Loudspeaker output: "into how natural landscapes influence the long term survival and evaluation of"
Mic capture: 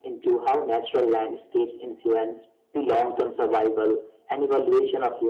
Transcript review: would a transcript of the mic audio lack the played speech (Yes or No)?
No